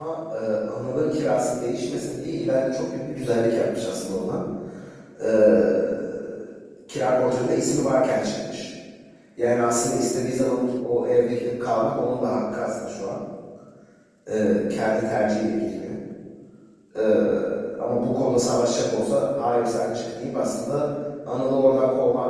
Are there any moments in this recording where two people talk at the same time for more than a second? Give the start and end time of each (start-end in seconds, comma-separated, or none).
none